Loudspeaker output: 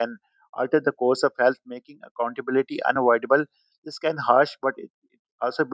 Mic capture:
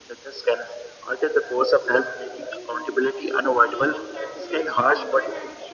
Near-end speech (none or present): present